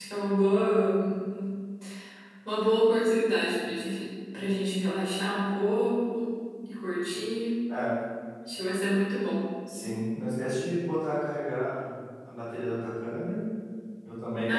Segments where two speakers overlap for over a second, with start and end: none

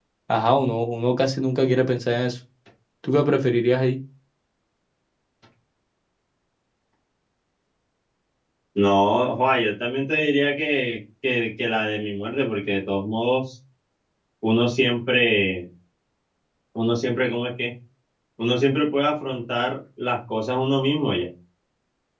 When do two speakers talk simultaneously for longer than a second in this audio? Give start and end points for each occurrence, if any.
none

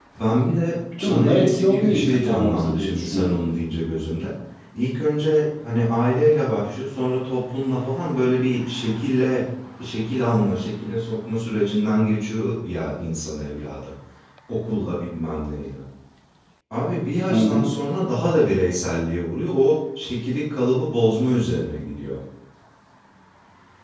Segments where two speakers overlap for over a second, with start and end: 1.0-3.4

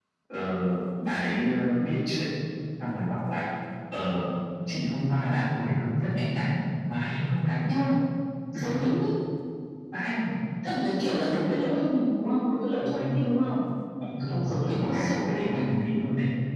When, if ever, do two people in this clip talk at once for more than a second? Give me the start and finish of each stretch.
14.3-15.6

